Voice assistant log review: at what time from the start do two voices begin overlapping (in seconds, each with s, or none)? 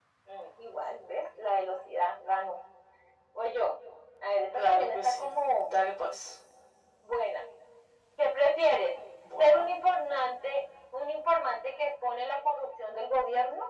4.5 s